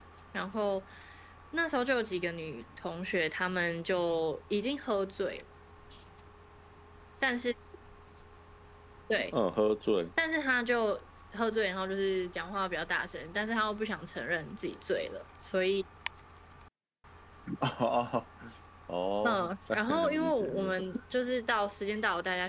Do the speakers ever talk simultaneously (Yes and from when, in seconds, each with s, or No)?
Yes, from 19.2 s